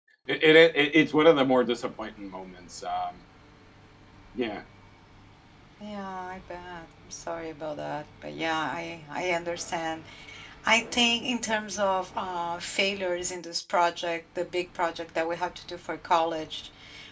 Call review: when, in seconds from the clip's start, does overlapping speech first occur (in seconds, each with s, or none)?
none